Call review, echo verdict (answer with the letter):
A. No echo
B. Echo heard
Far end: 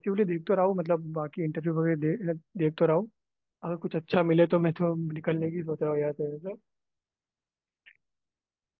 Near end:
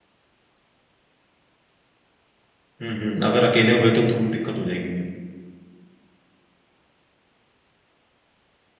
A